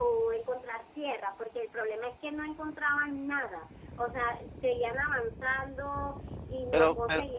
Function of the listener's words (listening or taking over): listening